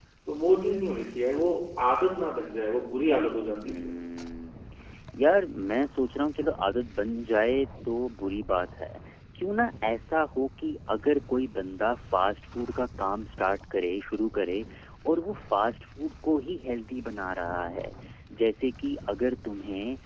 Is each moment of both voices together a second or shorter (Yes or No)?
Yes